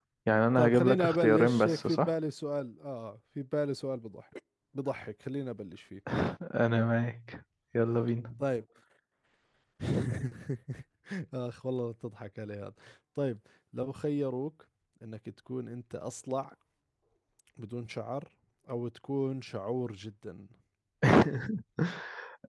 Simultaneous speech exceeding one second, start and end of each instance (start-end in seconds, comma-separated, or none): 0.6-2.1